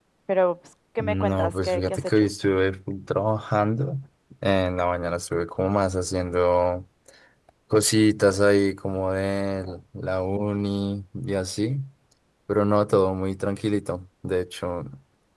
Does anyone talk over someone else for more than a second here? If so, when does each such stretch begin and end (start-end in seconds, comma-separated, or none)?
1.0-2.3